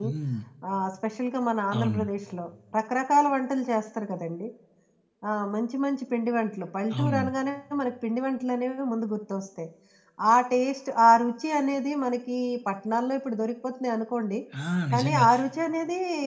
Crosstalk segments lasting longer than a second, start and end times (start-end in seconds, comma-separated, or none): none